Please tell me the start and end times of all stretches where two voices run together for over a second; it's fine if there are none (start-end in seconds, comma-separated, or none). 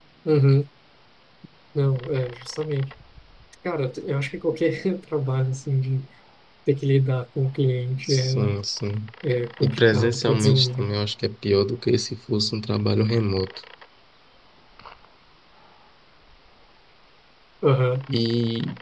9.6-10.9